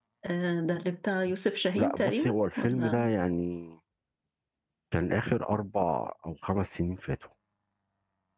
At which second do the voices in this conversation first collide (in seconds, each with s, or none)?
1.8 s